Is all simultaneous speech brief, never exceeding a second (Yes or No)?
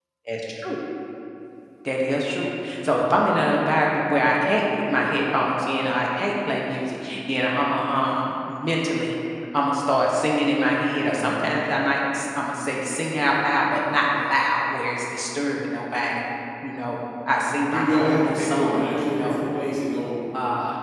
No